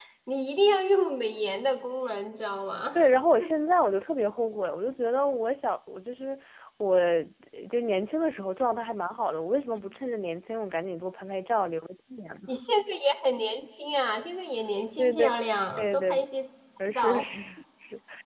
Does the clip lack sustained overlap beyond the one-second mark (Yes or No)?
Yes